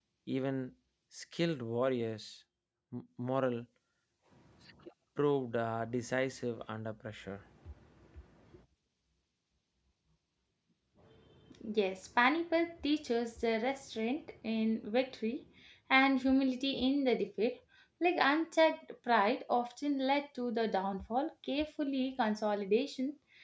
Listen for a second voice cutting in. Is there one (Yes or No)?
No